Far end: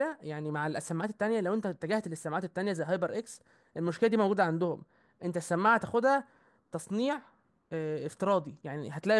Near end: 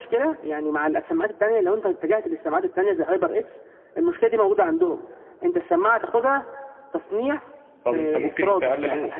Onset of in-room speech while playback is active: 7.8 s

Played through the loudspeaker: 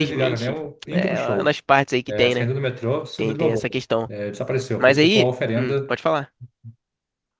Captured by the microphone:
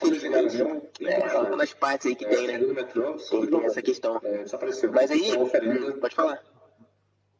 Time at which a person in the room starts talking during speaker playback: none

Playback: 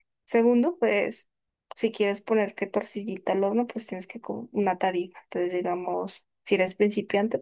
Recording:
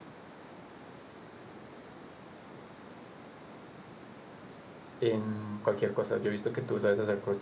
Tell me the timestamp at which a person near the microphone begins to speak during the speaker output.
5.0 s

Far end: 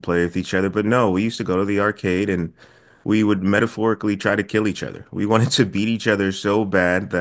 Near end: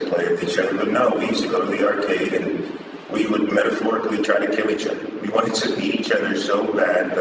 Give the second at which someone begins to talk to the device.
none

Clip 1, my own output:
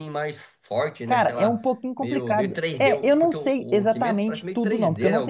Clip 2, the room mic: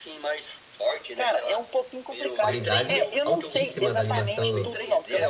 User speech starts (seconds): 2.4 s

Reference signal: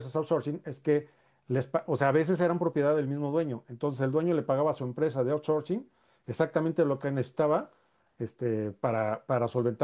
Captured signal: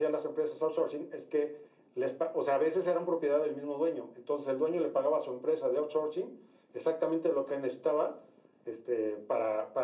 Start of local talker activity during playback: none

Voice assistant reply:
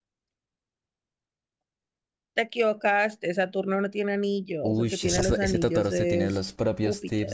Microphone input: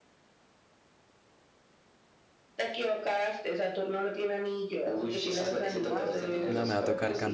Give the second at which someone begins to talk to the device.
5.9 s

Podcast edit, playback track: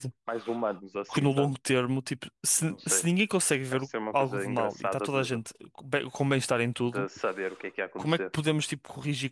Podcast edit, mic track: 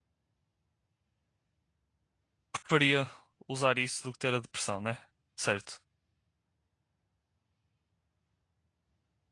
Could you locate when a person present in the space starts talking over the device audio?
2.5 s

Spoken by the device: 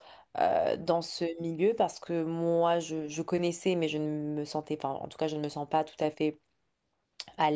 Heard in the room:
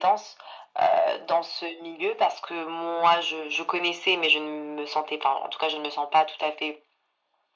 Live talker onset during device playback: none

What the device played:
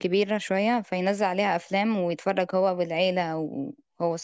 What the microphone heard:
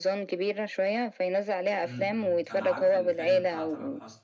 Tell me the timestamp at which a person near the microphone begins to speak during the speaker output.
1.8 s

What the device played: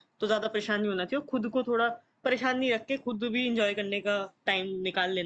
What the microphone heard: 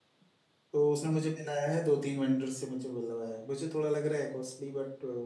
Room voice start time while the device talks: 0.7 s

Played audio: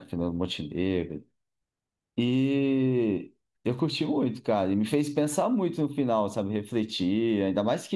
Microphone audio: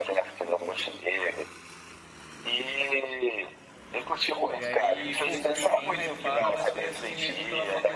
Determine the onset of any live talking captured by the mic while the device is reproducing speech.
4.5 s

